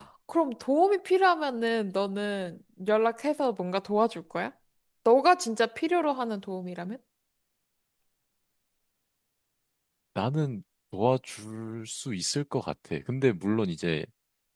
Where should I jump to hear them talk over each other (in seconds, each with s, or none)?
none